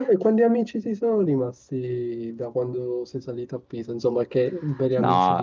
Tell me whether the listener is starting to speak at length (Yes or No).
Yes